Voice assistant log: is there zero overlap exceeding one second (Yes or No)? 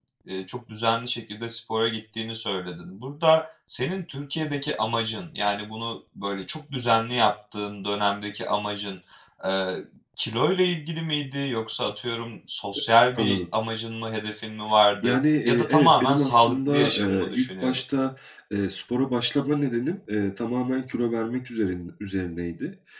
No